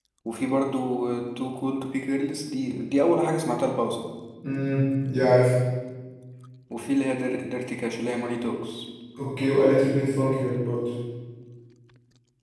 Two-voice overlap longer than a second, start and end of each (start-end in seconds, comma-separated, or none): none